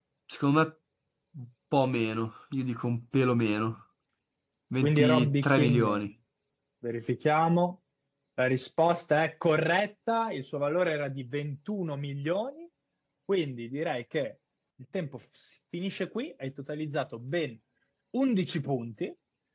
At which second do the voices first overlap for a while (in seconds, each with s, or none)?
4.8 s